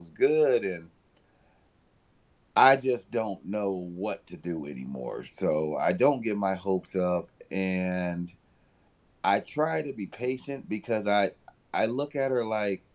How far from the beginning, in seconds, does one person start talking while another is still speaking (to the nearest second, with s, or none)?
none